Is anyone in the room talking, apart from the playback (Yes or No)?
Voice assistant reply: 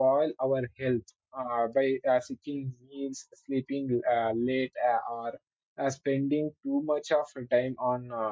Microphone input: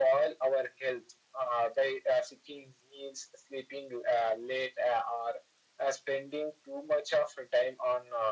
No